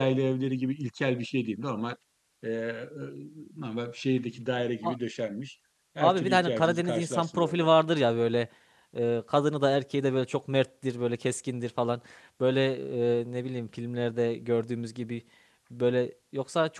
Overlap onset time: 6.0 s

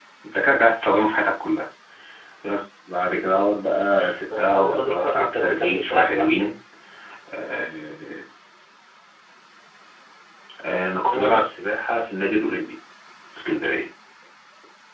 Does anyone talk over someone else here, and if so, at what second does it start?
4.0 s

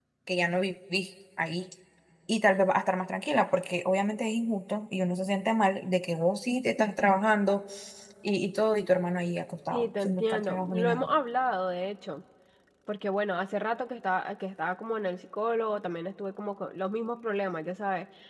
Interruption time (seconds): 9.7 s

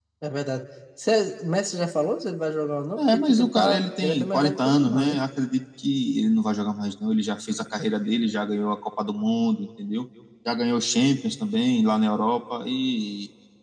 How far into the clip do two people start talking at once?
3.0 s

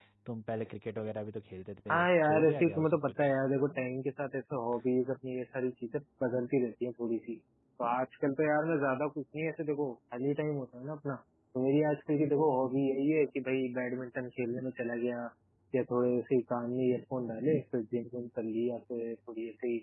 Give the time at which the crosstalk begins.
1.9 s

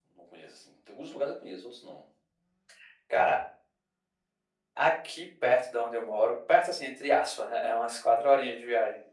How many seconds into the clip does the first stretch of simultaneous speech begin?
none

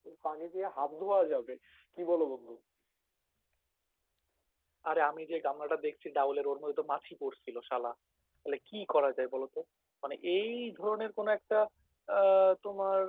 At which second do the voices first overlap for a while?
none

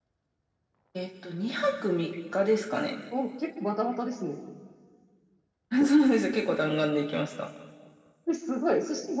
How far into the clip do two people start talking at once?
none

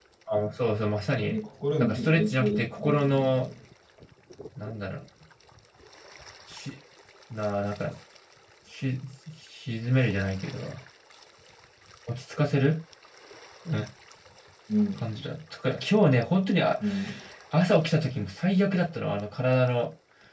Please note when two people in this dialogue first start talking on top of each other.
1.8 s

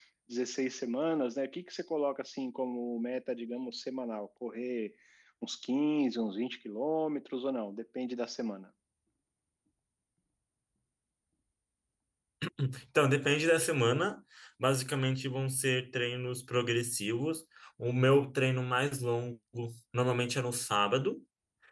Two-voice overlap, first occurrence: none

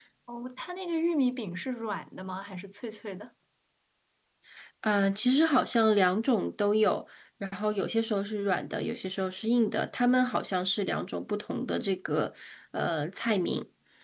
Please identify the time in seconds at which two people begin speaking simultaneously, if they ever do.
none

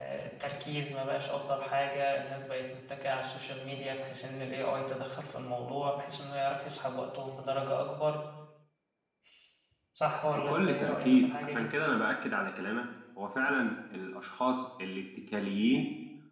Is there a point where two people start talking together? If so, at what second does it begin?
10.5 s

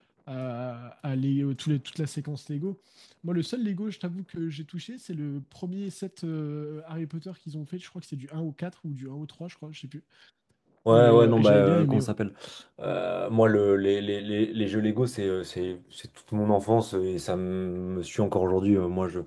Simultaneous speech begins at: 10.9 s

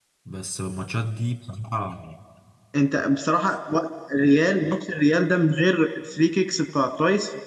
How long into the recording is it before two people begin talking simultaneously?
none

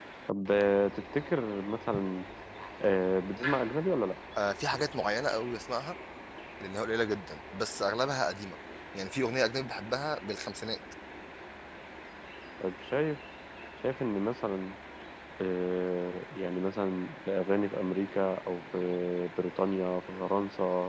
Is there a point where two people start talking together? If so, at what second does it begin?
none

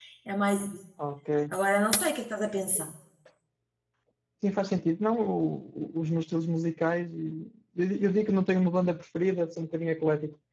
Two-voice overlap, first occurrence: none

